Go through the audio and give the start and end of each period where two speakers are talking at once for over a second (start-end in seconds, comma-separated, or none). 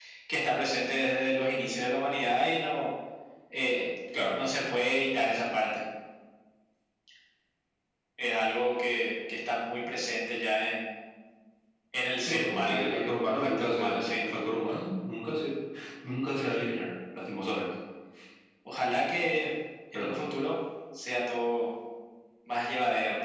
12.2-14.2